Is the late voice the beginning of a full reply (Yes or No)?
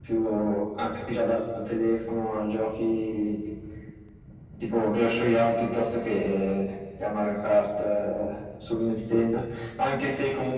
No